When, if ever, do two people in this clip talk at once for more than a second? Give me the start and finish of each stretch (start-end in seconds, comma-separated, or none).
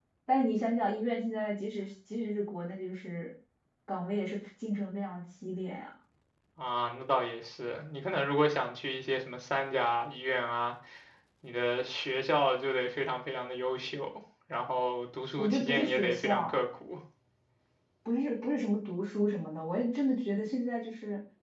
15.4-16.6